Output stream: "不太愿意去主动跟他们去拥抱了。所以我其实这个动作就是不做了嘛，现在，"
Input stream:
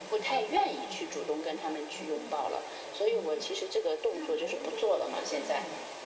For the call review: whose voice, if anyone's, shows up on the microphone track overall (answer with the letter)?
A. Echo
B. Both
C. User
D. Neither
B